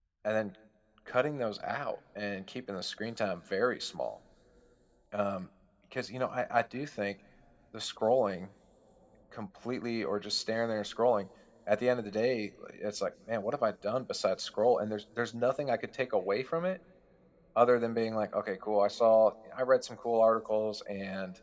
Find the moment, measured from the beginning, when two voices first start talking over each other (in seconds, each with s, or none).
none